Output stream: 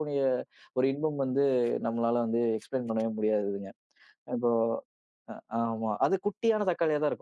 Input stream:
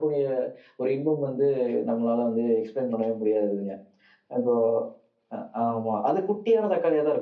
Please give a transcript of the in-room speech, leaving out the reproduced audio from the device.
none

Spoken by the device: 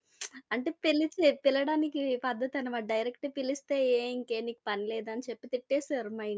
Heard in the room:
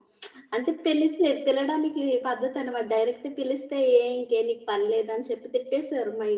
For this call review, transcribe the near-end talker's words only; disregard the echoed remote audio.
none

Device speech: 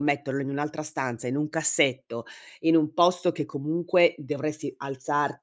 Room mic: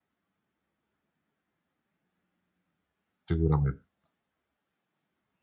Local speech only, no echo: Sicurame

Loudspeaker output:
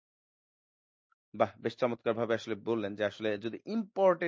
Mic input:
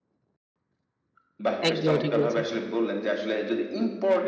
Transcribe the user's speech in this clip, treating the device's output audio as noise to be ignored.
একদমই ঠিক বলেছেন।

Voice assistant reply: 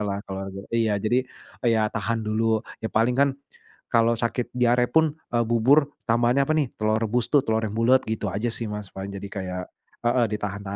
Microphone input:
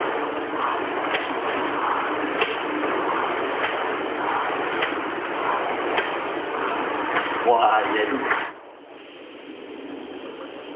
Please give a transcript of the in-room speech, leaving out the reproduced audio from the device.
Wah iya itu

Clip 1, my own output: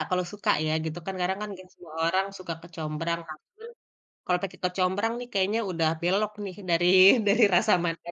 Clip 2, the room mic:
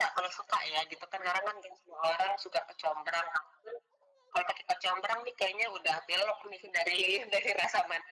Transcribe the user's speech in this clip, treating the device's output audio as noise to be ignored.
none

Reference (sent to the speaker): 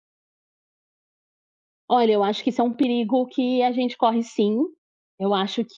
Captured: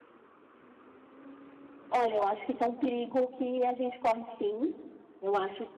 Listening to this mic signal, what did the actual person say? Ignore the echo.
none

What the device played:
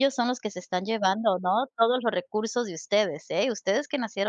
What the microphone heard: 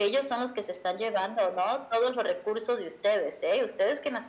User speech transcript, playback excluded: none

